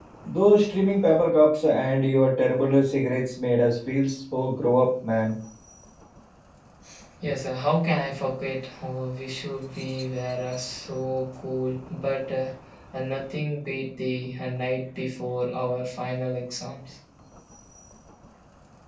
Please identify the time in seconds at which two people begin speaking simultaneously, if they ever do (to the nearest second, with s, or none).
none